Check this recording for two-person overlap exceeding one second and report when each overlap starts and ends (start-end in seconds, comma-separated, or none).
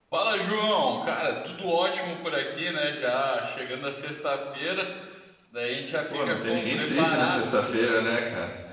6.1-7.7